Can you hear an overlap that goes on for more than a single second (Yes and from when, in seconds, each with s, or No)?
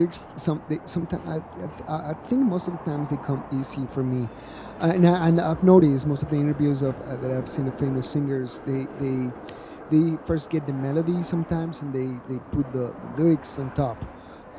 No